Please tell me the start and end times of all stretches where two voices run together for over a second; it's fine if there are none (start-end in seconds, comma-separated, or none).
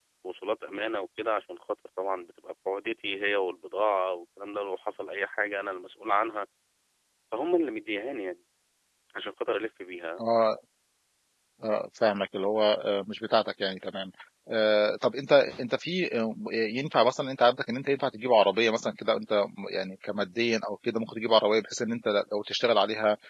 none